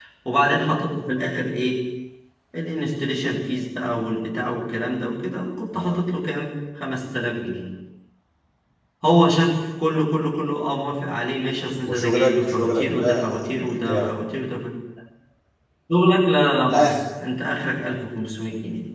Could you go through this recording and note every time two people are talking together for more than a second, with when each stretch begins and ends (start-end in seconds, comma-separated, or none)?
11.9-13.4